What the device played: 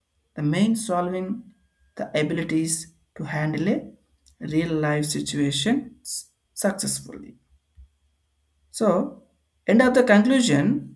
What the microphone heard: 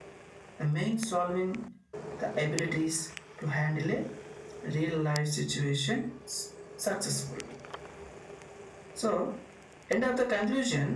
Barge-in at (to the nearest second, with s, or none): none